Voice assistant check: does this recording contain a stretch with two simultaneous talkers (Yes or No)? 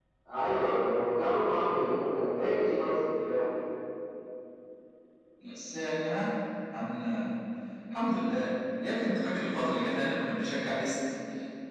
No